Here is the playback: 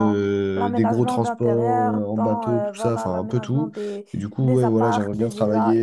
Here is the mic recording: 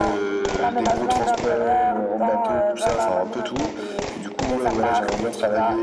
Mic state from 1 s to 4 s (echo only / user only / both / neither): echo only